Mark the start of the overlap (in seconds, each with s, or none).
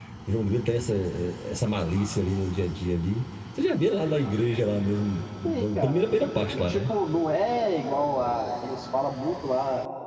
5.4 s